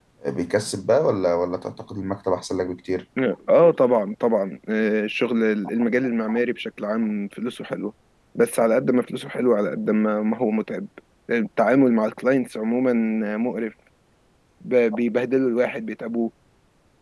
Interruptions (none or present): none